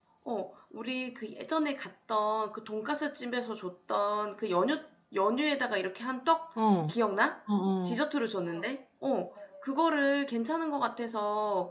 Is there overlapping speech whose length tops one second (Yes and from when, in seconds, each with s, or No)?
No